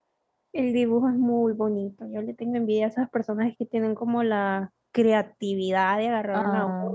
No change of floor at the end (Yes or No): Yes